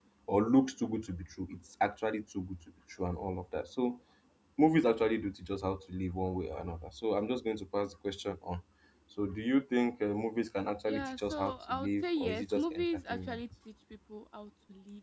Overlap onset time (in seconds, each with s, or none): 10.9 s